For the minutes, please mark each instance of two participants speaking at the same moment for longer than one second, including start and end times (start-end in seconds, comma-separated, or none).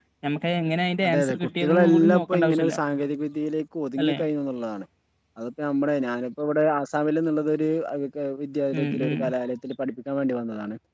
1.1-2.8